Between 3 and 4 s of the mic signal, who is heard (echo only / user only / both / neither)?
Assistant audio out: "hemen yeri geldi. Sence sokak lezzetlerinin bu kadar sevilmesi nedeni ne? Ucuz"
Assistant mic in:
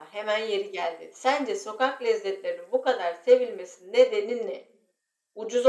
echo only